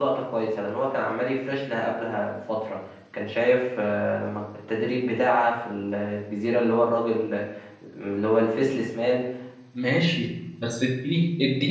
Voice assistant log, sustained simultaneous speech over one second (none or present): none